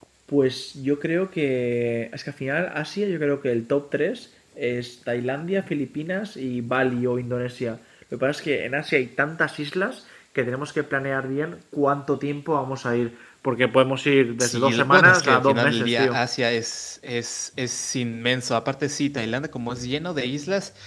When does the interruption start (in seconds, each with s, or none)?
14.4 s